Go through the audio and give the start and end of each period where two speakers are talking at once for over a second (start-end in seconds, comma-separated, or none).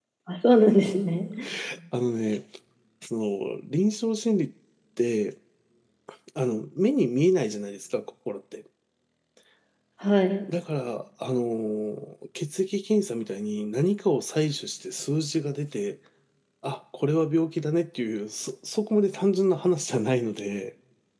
none